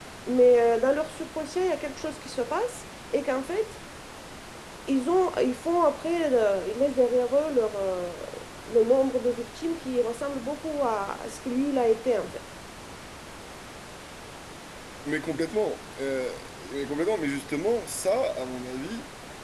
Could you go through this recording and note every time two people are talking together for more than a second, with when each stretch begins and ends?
none

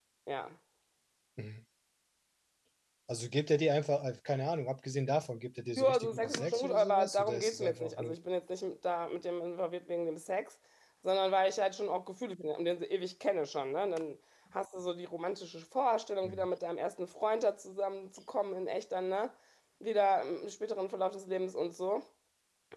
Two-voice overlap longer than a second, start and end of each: 5.8-8.2

